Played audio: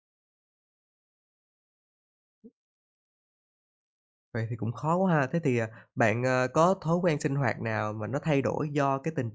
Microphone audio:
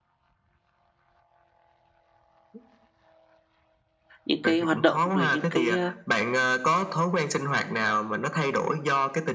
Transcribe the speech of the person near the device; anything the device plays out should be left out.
những cái hoạt động, rồi những cái, a,

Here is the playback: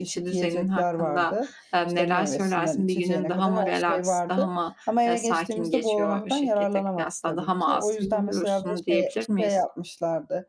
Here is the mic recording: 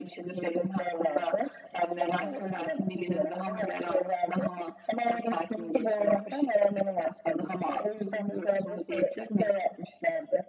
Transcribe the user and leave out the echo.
none

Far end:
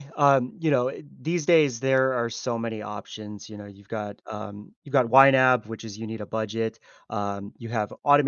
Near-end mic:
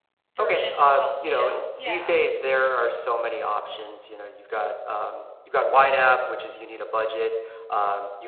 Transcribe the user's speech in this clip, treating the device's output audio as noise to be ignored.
version would help me out, yeah.

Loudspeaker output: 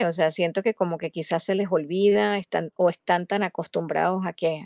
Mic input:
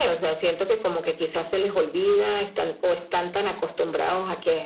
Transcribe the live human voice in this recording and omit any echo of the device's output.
none

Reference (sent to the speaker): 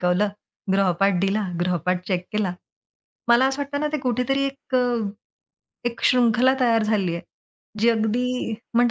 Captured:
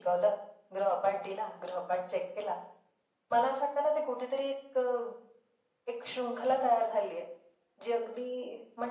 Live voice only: none

